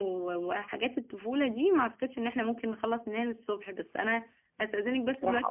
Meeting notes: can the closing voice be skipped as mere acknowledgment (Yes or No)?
Yes